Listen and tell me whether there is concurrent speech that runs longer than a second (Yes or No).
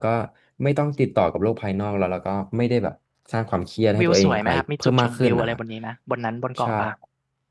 Yes